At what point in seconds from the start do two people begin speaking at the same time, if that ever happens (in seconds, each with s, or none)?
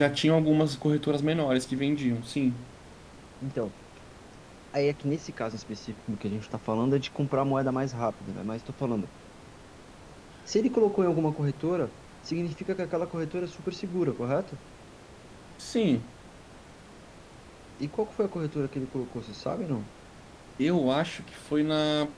none